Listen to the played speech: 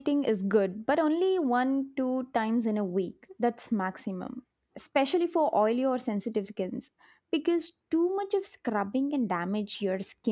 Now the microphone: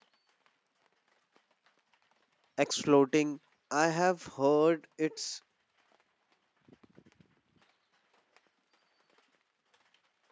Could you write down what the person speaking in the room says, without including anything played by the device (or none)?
exfoliating? I have heard it's